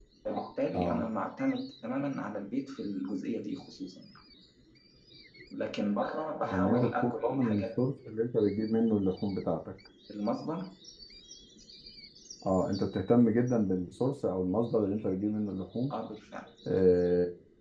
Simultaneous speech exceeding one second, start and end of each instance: 6.4-7.8

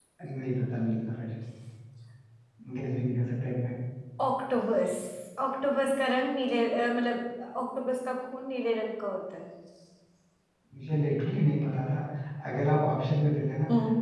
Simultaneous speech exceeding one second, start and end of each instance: none

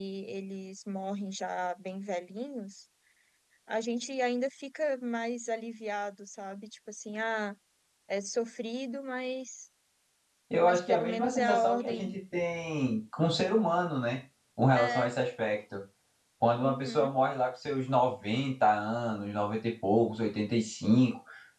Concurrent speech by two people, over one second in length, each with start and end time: 10.6-12.0

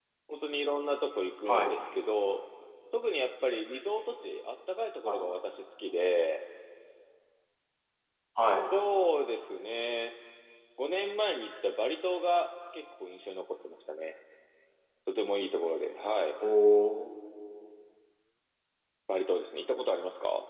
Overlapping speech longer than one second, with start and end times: none

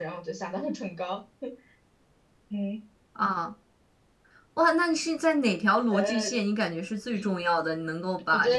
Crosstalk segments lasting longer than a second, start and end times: none

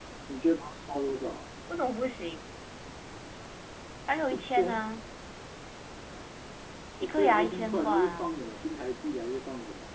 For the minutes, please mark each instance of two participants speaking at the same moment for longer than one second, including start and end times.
7.0-8.3

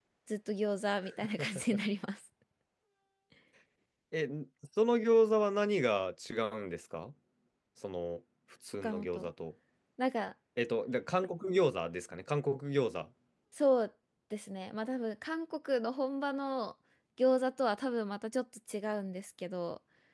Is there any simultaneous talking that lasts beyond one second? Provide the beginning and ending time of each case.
none

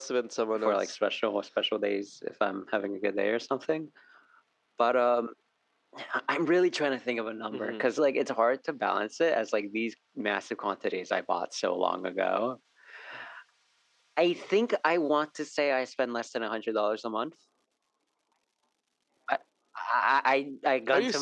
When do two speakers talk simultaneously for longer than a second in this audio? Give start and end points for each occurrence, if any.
none

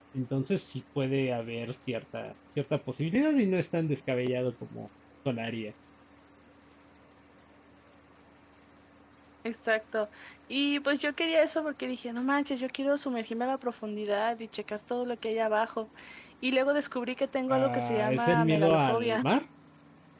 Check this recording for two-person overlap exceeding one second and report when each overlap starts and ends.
17.5-19.2

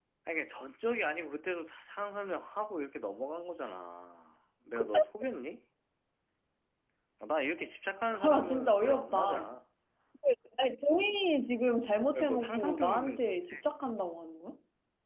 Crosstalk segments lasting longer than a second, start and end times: 8.1-9.6, 12.1-13.6

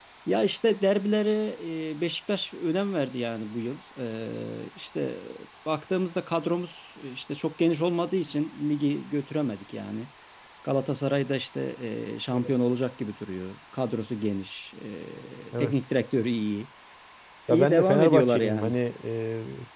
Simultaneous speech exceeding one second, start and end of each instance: 17.5-18.7

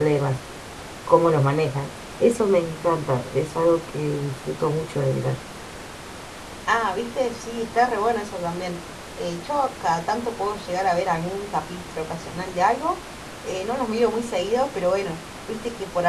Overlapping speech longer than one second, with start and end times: none

